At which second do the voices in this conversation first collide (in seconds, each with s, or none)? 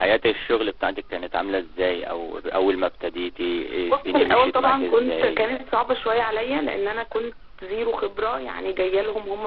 3.9 s